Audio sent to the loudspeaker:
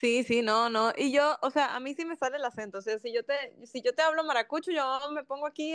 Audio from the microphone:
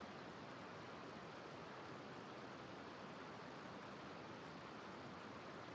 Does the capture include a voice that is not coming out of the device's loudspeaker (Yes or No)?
No